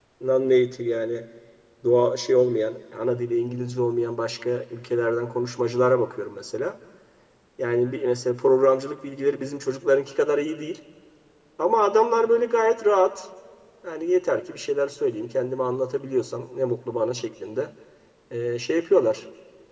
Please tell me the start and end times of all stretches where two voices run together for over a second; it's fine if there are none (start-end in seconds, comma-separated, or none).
none